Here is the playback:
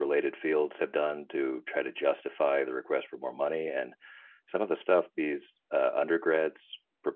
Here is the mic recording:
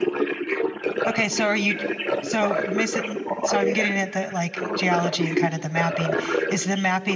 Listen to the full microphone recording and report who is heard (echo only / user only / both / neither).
both